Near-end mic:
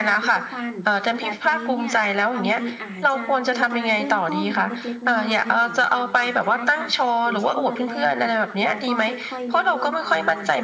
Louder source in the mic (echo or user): echo